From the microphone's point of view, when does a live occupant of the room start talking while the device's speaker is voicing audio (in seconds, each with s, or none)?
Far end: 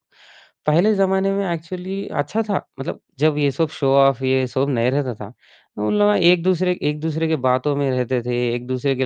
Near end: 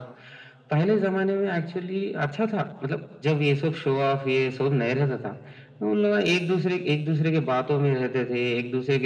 none